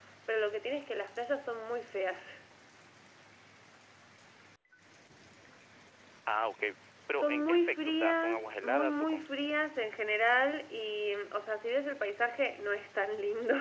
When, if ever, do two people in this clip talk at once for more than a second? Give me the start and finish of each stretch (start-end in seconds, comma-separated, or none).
7.2-9.3